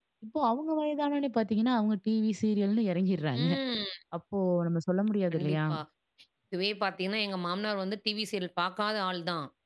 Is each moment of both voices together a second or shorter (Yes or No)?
Yes